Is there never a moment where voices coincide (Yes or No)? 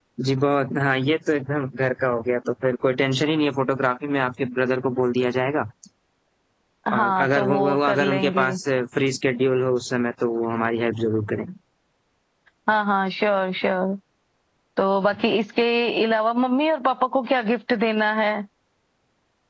No